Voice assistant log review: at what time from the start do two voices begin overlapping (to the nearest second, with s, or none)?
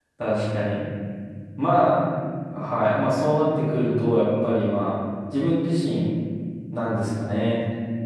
none